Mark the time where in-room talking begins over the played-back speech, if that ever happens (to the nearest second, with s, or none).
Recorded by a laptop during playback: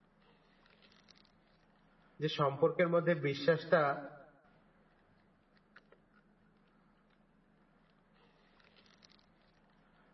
2 s